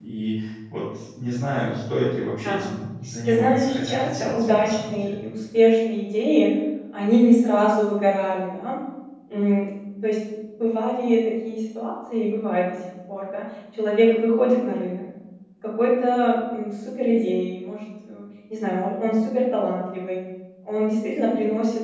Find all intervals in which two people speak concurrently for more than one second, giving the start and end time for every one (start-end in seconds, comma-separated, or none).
3.3-5.2